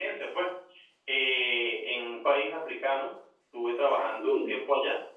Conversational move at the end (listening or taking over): listening